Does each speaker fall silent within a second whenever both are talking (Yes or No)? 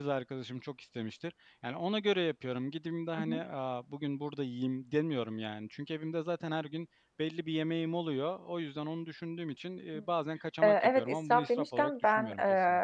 No